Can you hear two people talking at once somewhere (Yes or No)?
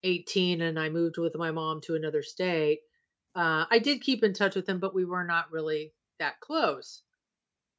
No